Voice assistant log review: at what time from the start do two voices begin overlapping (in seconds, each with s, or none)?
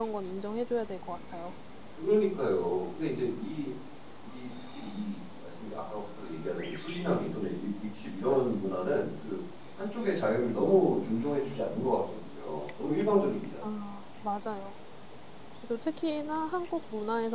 none